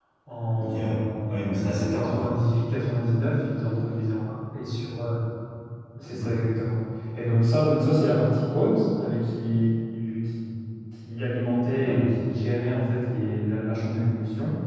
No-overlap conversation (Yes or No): No